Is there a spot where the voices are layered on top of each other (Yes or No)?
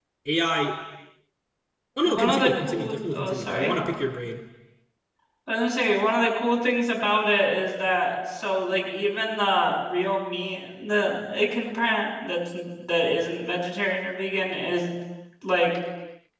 Yes